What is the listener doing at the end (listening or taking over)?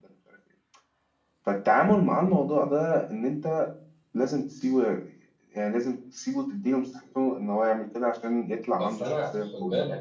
taking over